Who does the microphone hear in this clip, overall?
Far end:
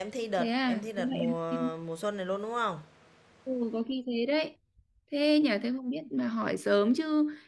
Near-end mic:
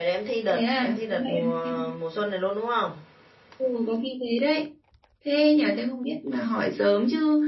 echo only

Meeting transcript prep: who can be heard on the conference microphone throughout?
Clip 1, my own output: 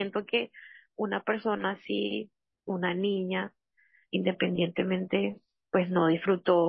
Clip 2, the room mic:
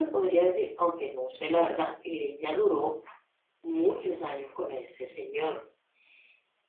user only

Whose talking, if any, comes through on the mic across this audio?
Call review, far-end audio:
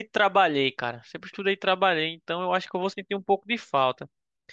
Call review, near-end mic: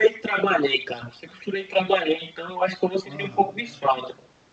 both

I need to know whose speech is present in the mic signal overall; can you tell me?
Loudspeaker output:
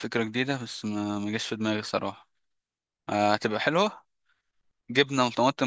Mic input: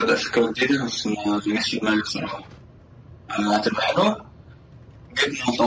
echo only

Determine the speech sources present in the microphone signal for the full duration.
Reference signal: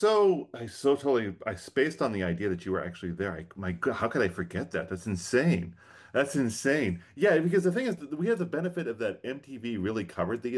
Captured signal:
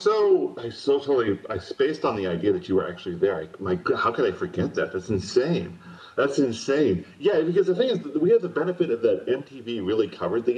echo only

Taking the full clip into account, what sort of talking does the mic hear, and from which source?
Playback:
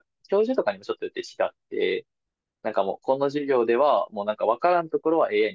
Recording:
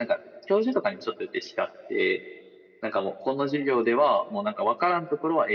echo only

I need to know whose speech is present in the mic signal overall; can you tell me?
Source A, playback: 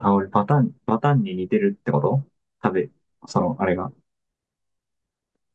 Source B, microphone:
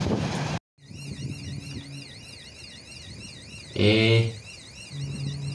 user only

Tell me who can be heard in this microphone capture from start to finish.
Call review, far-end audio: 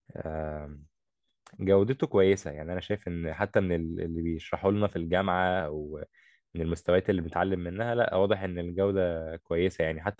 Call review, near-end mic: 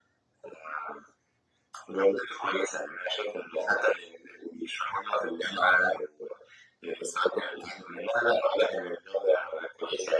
echo only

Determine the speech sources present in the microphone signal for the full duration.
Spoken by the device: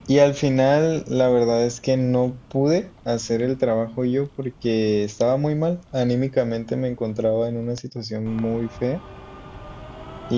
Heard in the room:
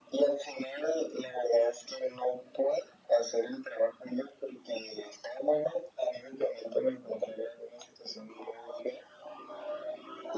echo only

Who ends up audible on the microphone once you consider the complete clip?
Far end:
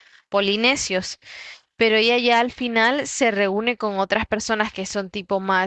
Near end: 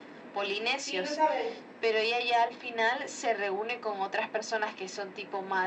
both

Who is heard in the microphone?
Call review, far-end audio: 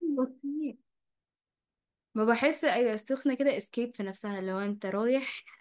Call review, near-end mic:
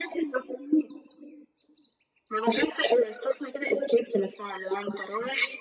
echo only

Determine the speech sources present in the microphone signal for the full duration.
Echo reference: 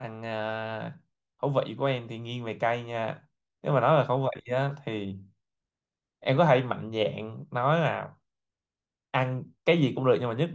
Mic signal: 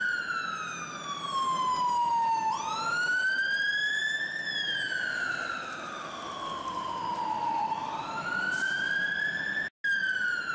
neither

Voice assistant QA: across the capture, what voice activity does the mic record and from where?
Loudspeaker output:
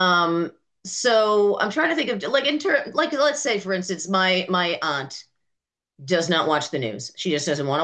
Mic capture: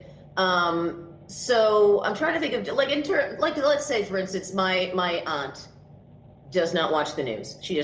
echo only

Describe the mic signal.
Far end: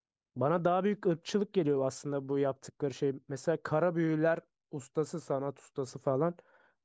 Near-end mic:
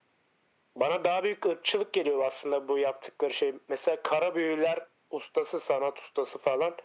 echo only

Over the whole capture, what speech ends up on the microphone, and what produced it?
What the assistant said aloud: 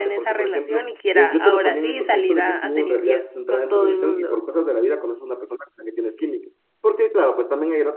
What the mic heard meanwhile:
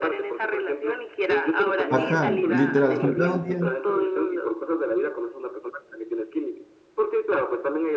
both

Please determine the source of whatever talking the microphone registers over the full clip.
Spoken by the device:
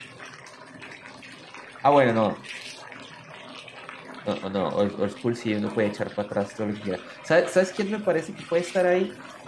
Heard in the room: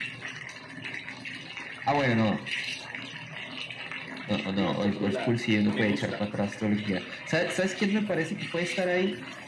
both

